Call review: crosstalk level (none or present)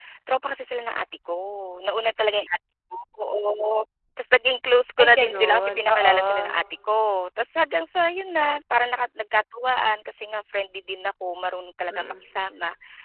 present